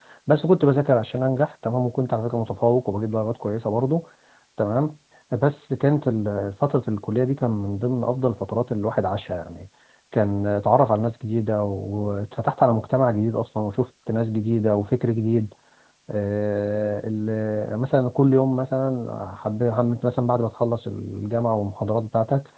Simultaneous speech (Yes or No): No